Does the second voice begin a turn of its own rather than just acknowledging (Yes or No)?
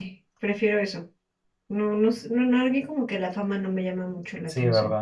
Yes